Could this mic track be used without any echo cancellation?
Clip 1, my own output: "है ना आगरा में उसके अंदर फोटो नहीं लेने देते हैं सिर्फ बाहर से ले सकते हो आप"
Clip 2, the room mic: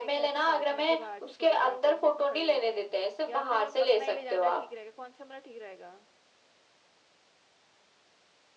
No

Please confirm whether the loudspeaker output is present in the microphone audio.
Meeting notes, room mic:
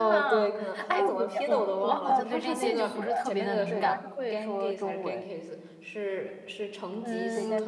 Yes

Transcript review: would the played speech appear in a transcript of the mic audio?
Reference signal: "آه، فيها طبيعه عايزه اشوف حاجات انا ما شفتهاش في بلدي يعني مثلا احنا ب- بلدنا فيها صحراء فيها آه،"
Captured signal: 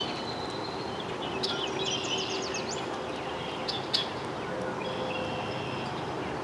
No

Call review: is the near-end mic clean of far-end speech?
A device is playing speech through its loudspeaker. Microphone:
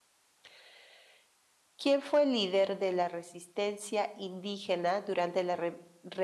Yes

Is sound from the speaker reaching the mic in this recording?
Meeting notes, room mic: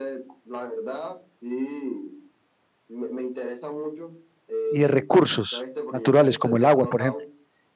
Yes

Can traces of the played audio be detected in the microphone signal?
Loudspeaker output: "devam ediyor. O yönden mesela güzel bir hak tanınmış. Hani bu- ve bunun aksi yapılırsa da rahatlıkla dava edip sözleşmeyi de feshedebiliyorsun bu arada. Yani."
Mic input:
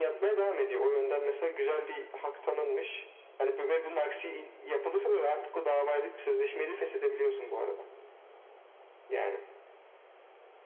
Yes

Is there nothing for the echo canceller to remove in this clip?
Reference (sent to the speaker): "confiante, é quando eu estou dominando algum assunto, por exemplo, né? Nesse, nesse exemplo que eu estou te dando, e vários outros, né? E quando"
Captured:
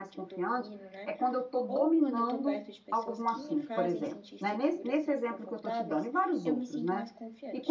No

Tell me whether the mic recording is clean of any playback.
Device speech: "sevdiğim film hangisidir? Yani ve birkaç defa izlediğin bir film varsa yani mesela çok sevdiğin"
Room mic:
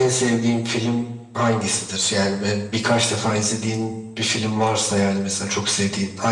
No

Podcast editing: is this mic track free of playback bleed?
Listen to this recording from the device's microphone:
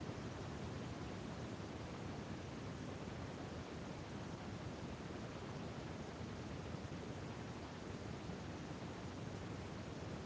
Yes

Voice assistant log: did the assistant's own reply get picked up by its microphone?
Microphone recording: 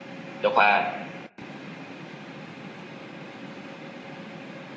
No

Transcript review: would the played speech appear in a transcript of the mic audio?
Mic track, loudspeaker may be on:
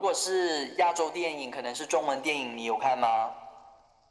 Yes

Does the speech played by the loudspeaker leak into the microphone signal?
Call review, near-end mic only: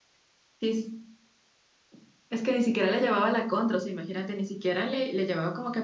No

